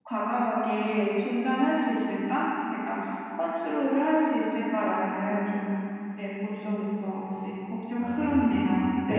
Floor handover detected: Yes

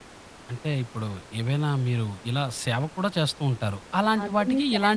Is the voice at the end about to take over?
Yes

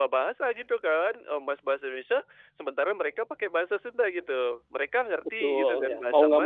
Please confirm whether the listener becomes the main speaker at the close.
Yes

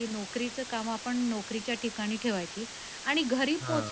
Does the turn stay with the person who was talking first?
Yes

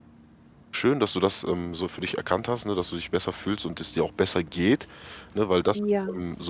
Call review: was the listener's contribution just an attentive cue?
Yes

